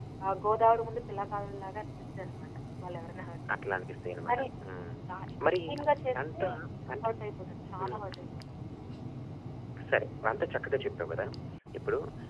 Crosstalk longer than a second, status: none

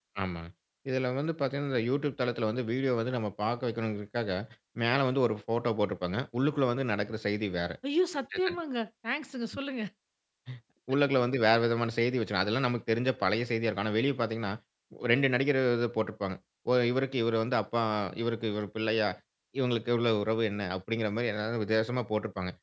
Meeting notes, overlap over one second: none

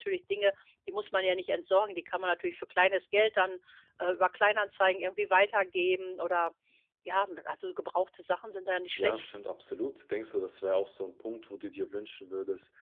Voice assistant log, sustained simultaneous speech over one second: none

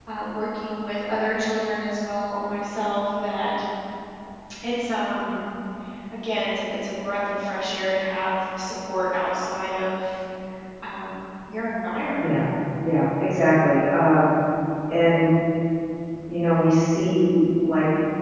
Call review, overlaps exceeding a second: none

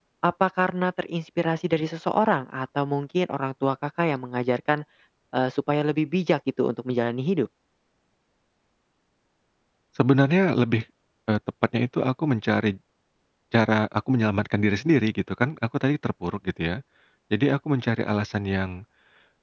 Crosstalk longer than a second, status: none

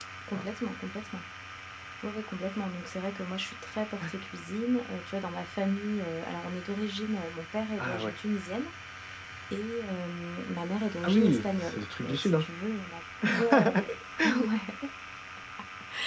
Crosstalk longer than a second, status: present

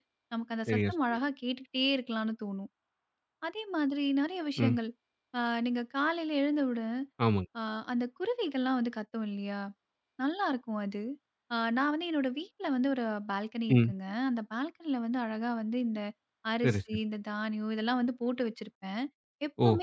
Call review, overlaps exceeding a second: none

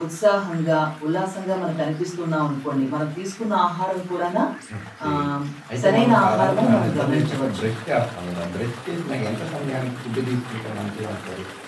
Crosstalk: present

